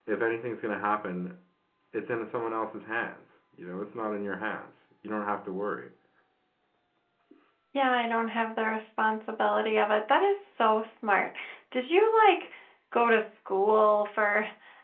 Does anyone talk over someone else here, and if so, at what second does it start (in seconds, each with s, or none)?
none